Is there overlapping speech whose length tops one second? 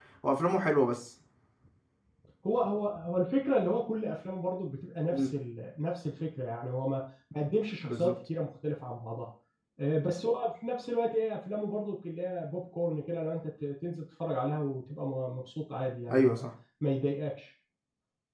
No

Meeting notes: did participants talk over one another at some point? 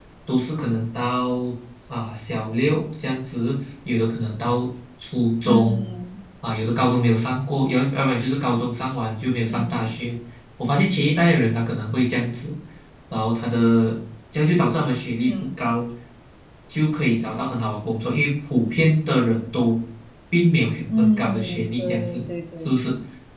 Yes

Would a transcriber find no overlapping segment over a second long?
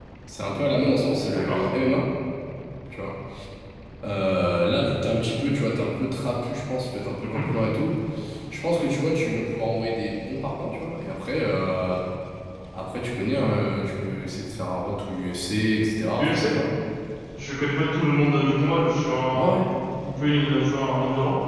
Yes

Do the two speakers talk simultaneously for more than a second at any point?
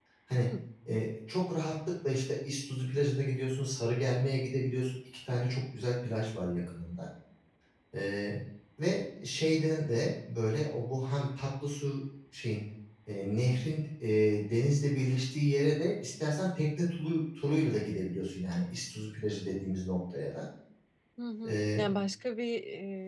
No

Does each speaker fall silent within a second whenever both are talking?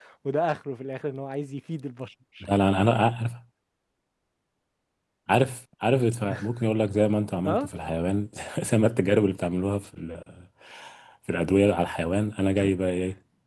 Yes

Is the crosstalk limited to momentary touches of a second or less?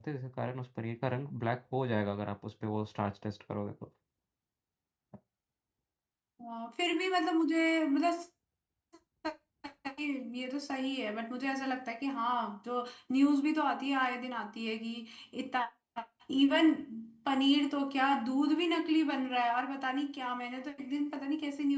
Yes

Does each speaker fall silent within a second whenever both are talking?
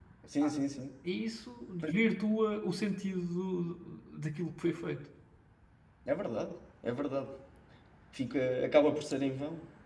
Yes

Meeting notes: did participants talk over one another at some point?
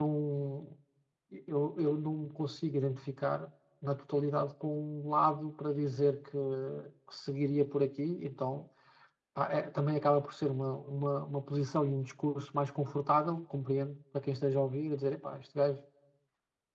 No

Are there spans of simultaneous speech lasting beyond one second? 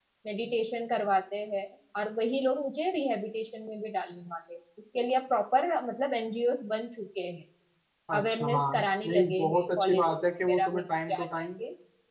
Yes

